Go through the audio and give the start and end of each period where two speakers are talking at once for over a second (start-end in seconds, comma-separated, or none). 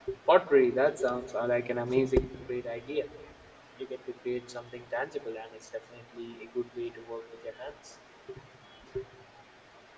none